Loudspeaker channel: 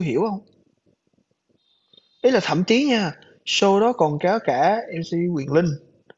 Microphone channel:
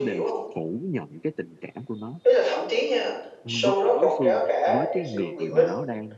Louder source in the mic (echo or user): echo